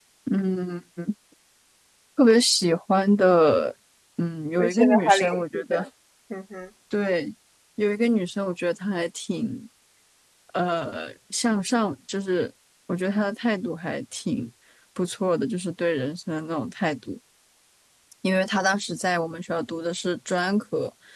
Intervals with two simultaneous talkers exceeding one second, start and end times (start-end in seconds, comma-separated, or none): 4.6-5.8